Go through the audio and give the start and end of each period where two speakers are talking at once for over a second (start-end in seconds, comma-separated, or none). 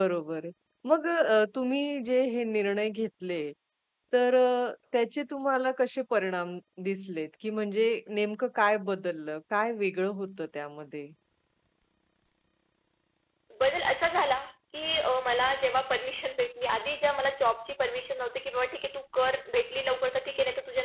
none